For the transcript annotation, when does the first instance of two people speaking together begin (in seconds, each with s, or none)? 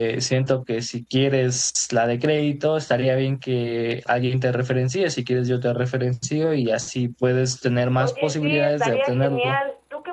7.9 s